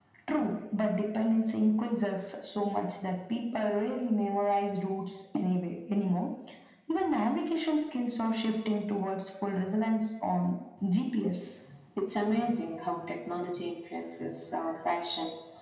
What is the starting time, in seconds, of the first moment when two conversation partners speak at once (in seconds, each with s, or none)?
none